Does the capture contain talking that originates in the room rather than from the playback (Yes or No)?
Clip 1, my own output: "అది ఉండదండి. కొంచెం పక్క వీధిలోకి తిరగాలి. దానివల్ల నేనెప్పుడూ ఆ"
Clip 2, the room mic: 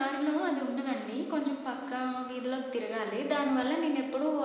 No